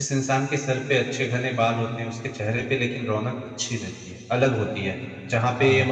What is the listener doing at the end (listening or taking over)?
listening